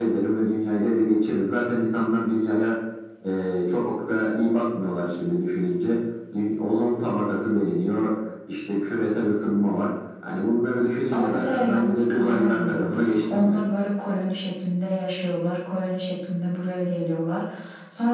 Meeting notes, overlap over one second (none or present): present